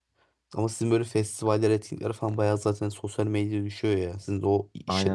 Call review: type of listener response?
taking over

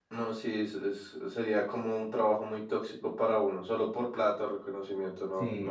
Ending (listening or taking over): taking over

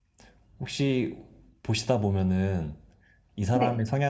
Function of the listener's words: listening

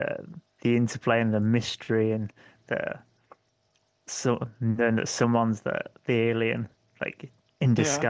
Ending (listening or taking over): listening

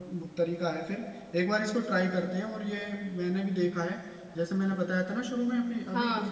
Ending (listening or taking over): listening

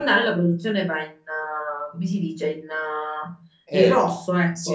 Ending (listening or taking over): taking over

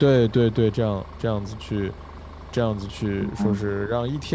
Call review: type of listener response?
listening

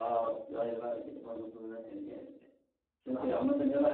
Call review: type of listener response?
listening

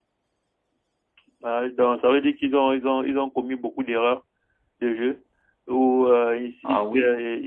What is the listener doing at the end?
listening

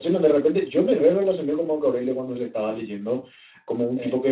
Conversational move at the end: listening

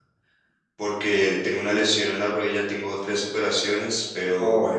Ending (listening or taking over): listening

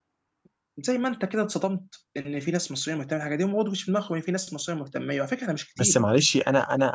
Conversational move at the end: taking over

